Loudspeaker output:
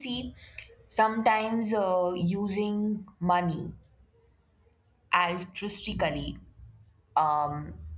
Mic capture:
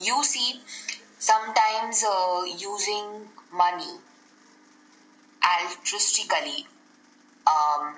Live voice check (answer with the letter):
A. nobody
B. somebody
A